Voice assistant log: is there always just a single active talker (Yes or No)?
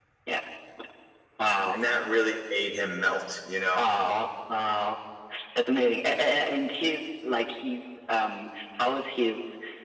Yes